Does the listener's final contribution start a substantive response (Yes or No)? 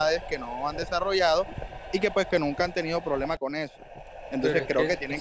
Yes